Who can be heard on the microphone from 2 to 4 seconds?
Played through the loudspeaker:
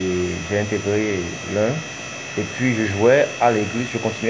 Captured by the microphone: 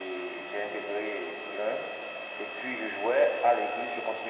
echo only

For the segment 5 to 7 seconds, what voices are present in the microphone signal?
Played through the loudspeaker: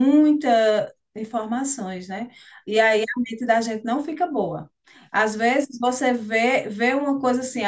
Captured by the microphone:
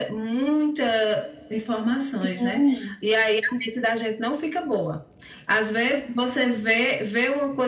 echo only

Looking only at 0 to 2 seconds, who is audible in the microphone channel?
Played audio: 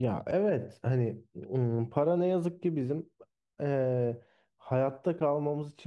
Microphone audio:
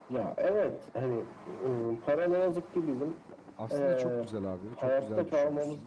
echo only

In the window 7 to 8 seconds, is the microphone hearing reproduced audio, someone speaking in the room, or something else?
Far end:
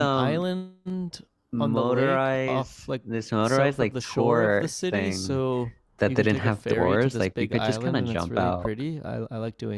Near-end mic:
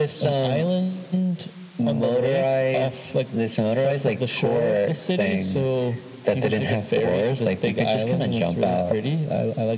echo only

